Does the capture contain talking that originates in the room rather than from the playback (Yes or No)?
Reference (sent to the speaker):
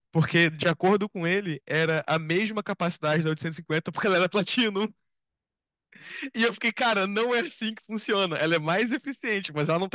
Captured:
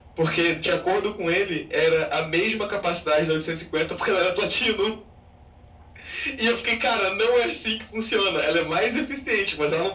No